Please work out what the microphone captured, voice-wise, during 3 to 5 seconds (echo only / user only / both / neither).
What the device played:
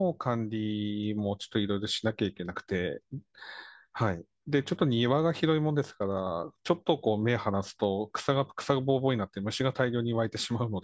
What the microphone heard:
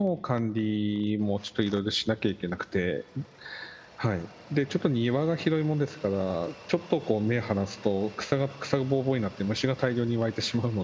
echo only